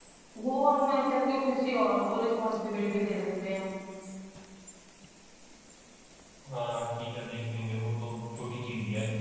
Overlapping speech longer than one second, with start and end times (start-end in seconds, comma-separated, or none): none